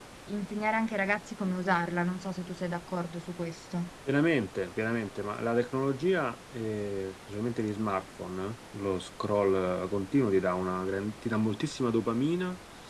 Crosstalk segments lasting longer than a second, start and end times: none

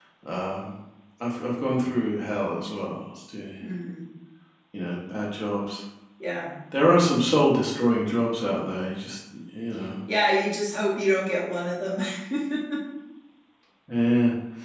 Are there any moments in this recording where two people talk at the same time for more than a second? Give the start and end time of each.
none

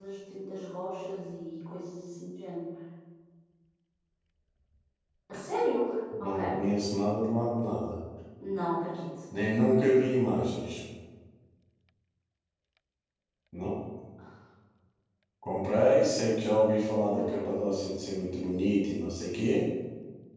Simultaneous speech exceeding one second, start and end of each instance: none

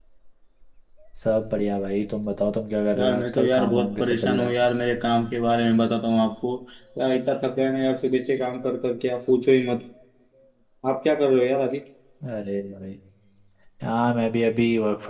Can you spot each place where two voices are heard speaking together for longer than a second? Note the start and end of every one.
3.0-4.6

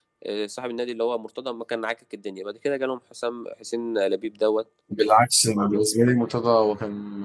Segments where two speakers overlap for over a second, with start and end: none

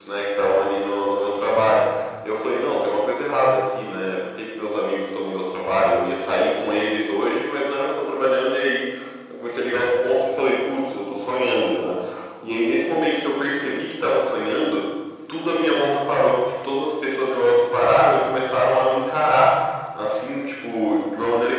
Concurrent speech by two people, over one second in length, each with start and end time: none

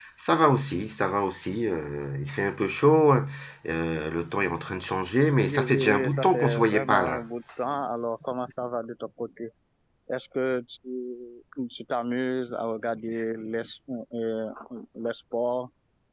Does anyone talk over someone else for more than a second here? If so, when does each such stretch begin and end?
5.4-7.2

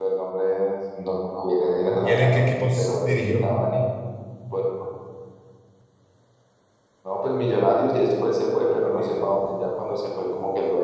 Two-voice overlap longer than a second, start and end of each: 2.0-3.5

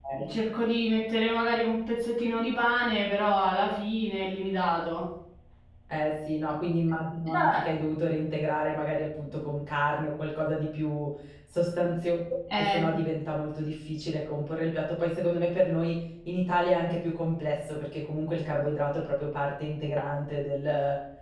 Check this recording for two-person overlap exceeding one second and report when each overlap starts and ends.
none

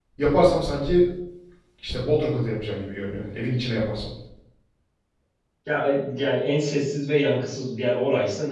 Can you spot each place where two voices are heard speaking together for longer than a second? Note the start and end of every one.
none

